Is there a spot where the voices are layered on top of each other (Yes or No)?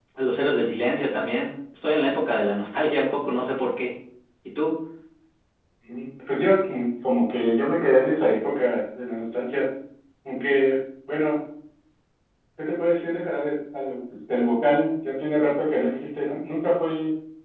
No